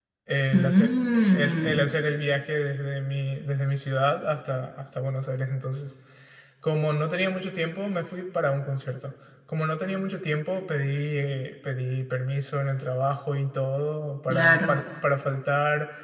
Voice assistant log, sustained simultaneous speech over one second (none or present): present